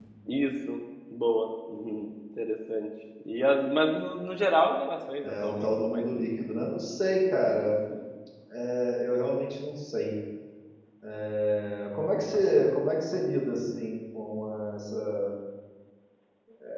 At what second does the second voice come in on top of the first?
5.2 s

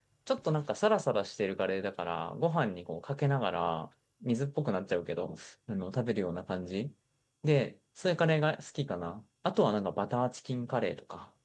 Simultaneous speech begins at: none

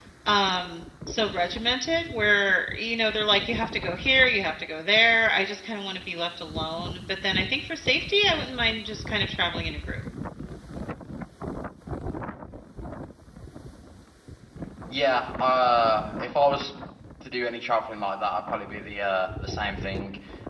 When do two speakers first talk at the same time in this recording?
none

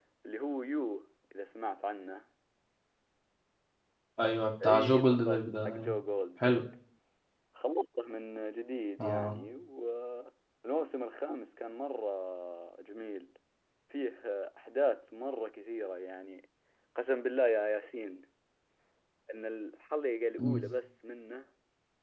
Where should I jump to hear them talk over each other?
4.6 s

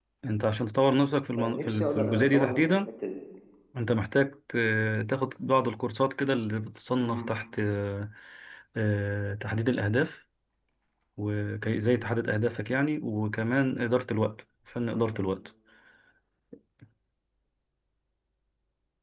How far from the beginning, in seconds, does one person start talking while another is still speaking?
1.4 s

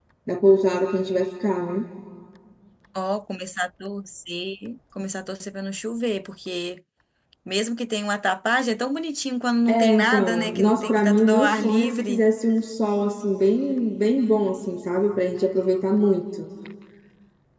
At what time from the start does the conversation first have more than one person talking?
9.7 s

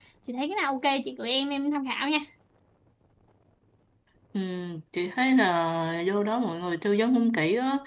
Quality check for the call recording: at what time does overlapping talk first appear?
none

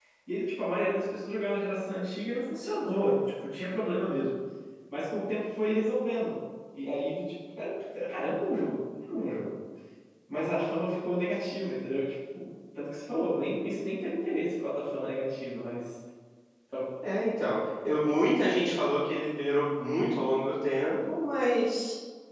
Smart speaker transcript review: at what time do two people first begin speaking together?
none

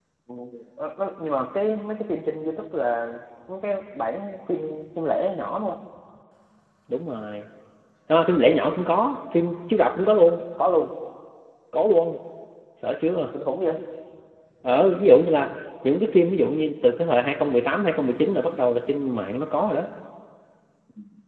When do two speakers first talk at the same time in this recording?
none

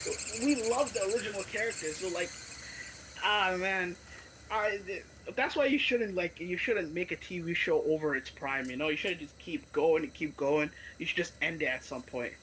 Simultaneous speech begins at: none

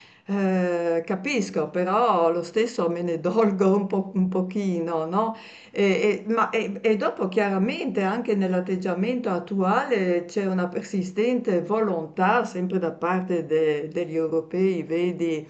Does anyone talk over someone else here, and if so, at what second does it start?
none

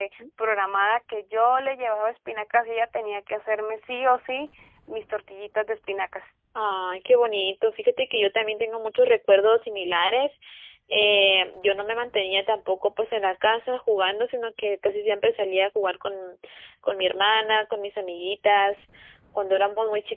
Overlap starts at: none

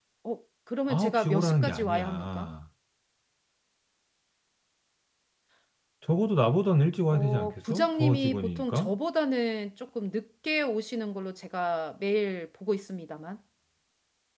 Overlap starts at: 0.9 s

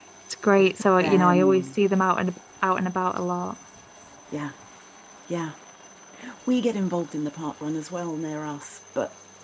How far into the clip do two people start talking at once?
0.5 s

